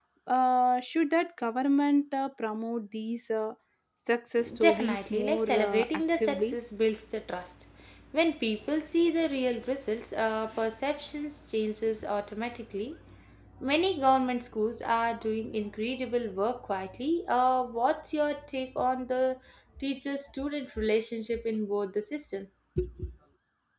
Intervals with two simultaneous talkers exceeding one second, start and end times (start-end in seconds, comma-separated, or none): 4.6-6.6